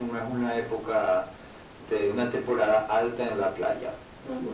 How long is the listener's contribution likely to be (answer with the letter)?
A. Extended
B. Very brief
A